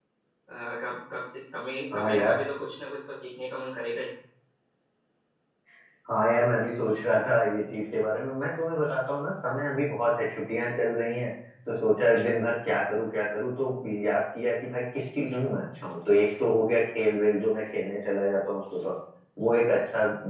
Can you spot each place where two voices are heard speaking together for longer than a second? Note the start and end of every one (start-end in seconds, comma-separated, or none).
none